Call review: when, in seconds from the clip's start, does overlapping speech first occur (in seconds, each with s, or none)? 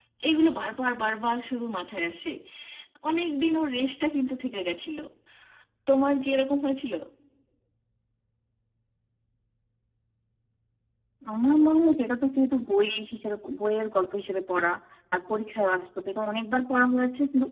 none